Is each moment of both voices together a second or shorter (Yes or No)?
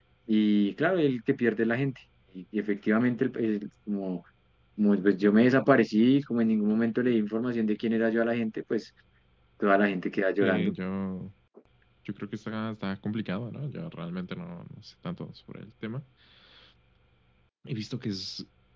Yes